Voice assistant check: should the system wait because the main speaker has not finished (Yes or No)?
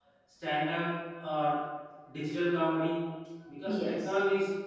Yes